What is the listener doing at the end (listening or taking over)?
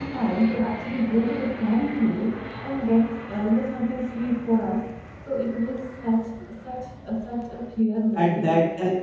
taking over